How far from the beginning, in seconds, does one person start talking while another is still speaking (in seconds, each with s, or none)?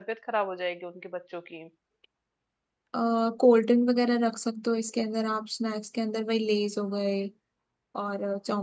none